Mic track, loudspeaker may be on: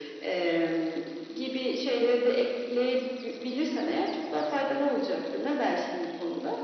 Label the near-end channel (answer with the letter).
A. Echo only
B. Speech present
A